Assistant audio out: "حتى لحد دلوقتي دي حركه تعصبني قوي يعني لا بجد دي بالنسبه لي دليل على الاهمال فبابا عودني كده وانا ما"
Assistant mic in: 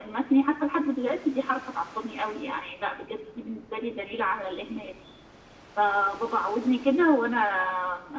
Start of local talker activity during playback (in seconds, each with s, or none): none